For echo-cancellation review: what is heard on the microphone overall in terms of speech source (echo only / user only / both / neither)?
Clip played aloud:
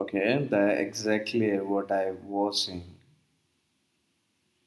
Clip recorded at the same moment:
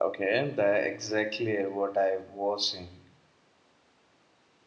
echo only